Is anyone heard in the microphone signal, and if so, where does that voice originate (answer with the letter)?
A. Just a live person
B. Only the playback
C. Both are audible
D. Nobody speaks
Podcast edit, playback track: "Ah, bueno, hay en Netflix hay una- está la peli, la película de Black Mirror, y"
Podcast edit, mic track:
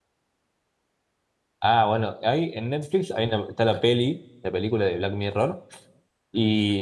B